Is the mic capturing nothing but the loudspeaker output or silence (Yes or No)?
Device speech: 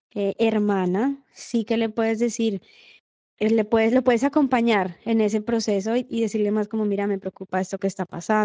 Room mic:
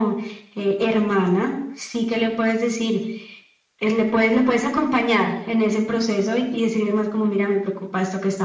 Yes